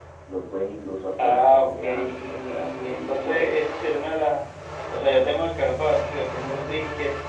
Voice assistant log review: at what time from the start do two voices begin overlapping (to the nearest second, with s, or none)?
1 s